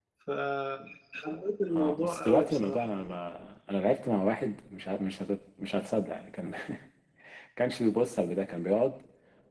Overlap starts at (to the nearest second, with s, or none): 2 s